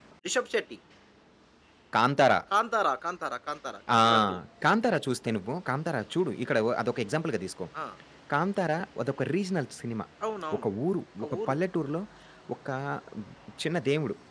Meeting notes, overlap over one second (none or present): none